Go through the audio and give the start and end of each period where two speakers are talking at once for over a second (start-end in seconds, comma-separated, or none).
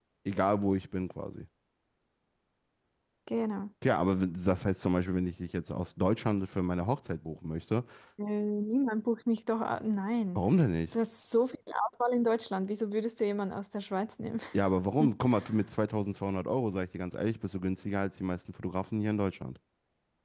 none